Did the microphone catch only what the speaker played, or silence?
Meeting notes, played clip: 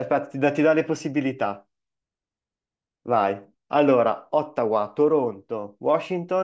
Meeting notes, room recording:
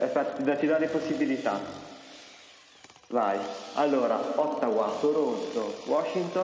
Yes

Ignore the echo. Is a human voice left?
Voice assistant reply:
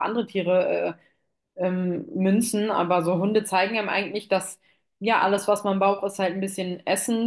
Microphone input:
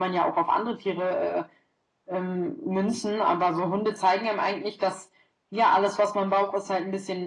No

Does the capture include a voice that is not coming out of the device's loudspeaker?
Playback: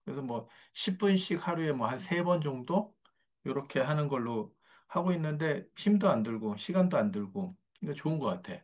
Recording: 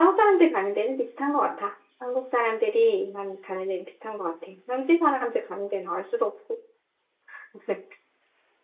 Yes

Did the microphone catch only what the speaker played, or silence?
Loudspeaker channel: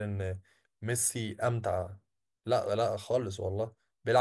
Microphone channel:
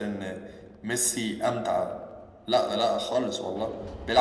Yes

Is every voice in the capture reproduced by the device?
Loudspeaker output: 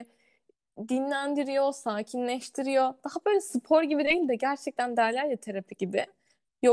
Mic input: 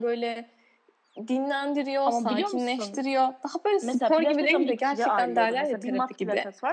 No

